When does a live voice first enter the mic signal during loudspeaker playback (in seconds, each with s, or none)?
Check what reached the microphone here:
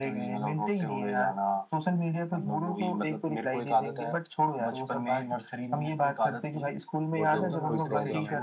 7.1 s